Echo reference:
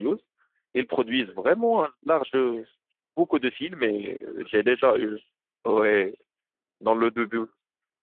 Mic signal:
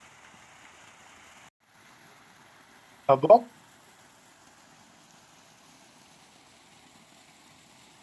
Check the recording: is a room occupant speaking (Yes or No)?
Yes